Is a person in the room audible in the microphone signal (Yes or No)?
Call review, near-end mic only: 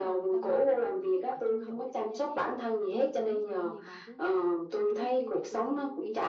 Yes